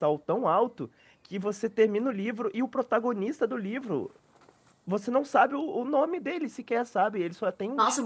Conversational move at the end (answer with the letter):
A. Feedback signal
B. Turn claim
B